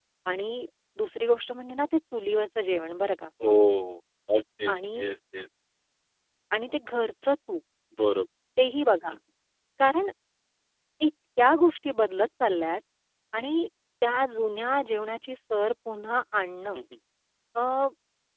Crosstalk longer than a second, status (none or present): none